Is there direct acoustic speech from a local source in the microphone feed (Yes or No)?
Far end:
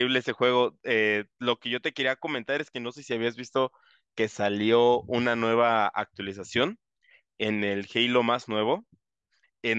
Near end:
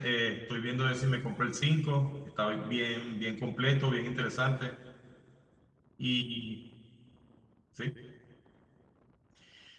Yes